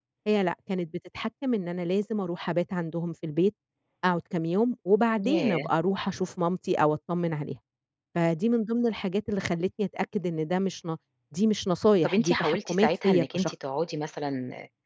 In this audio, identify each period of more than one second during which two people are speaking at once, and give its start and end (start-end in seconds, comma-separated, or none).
12.0-13.5